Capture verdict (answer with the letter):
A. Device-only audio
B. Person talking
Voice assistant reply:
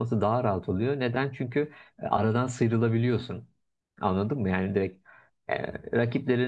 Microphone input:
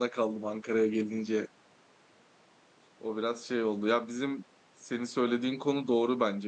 B